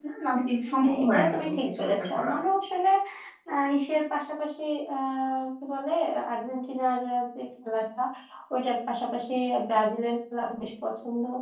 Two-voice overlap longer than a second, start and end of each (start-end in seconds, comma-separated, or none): 0.8-2.3